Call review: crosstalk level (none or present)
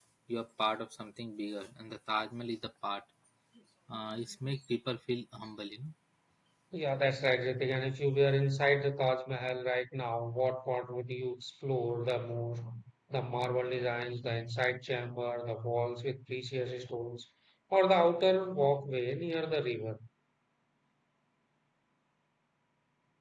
none